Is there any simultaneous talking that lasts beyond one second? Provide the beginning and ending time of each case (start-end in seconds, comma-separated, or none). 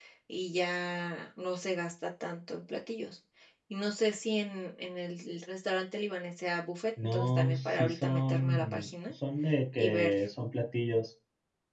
7.0-8.9